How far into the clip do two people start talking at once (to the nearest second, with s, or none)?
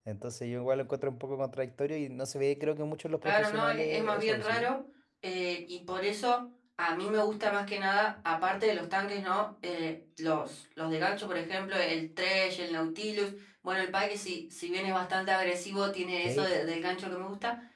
3 s